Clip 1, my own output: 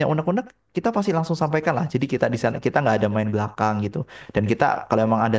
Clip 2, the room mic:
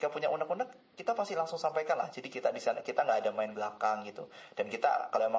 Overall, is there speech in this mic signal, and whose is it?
echo only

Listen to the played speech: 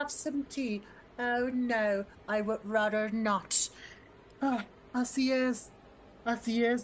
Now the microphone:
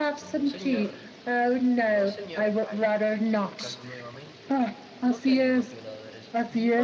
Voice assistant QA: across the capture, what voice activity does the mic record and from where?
both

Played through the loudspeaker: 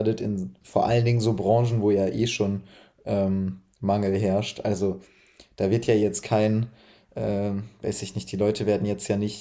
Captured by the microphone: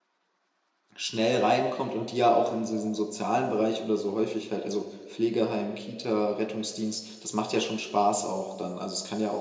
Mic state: user only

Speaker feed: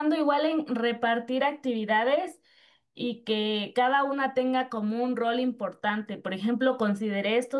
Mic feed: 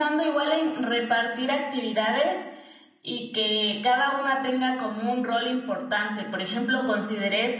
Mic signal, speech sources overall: echo only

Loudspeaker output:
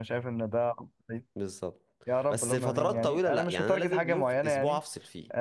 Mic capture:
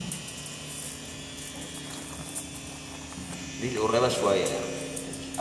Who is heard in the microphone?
user only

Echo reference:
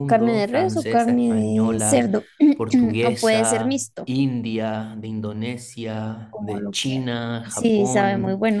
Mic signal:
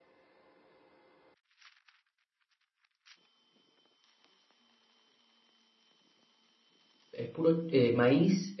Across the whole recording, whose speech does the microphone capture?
user only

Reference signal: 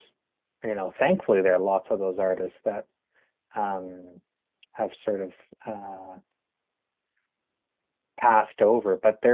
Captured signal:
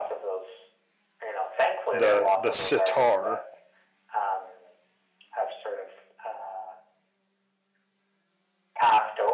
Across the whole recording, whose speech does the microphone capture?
both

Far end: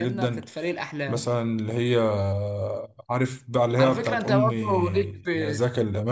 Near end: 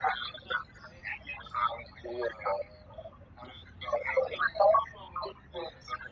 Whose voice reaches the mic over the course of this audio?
echo only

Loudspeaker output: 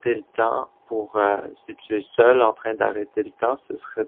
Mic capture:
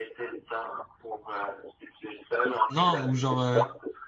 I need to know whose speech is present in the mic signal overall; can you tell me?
both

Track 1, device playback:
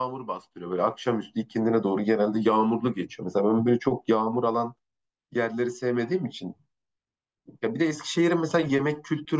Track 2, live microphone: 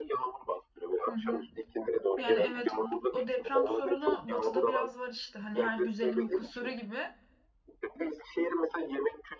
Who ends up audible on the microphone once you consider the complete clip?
both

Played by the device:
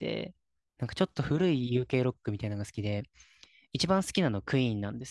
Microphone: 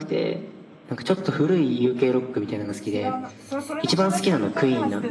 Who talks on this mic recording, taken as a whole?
both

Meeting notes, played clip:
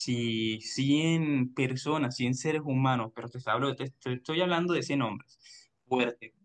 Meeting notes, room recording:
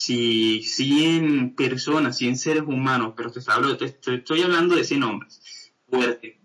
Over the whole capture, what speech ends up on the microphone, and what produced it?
echo only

